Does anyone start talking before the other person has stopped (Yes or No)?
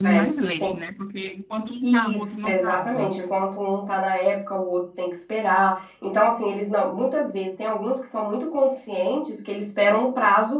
Yes